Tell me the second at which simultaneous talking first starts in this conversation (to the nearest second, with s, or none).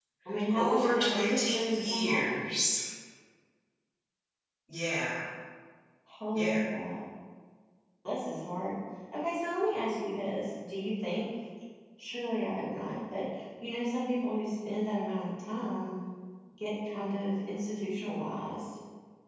1 s